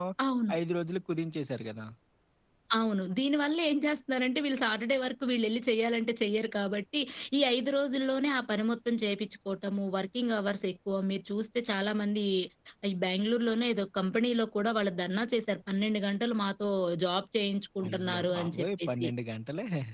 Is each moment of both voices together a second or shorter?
No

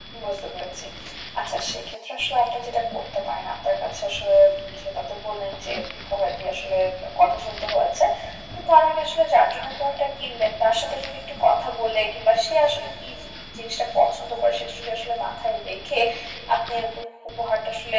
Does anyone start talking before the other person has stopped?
No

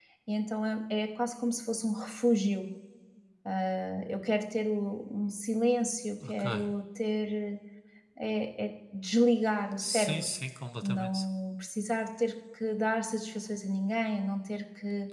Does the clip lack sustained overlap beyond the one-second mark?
Yes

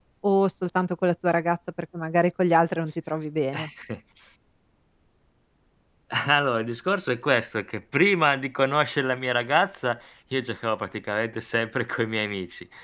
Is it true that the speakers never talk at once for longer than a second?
Yes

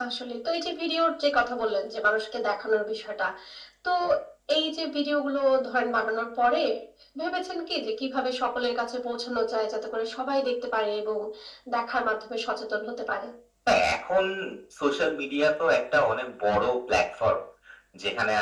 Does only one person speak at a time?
Yes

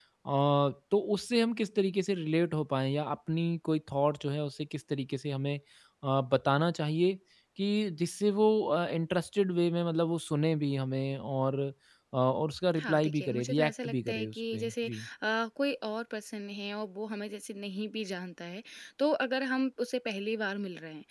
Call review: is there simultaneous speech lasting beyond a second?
Yes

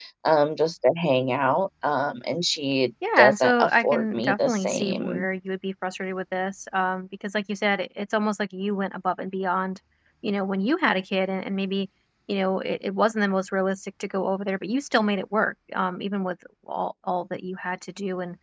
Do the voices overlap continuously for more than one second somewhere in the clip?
Yes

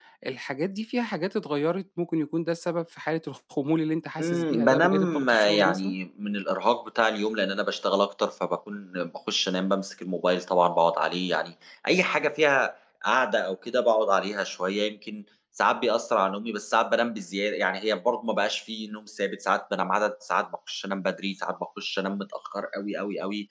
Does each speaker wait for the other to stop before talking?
No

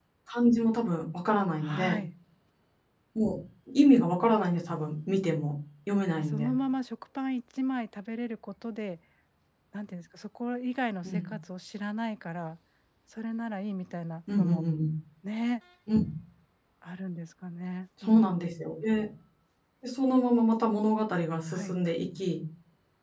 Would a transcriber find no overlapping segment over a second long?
Yes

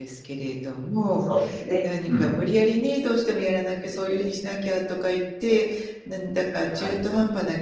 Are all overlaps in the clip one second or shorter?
Yes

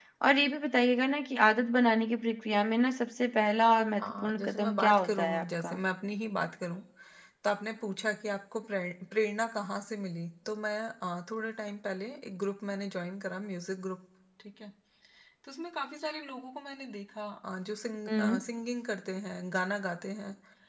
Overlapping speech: Yes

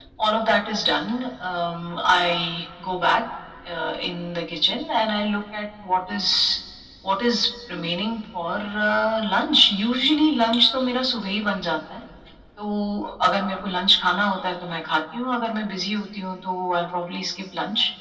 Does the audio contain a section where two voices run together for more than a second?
No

